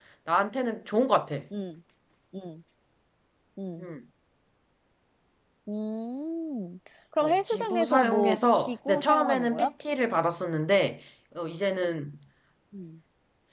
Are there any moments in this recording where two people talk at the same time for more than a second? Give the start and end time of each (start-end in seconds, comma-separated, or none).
7.2-9.7